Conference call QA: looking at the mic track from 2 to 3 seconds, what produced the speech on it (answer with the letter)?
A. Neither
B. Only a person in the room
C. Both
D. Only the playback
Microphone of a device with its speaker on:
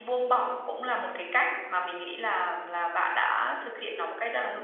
B